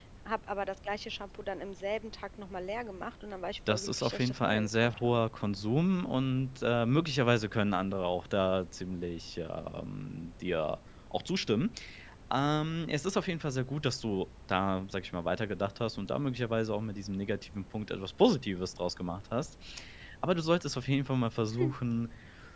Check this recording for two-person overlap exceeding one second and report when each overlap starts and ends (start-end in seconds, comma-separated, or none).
3.7-5.2